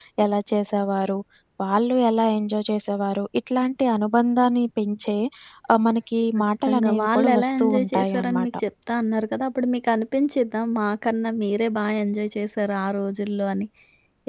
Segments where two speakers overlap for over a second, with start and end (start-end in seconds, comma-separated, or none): 6.4-8.5